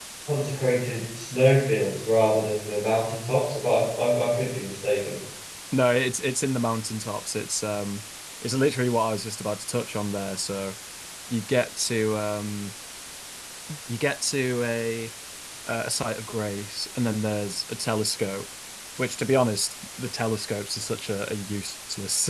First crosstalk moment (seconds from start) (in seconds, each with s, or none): none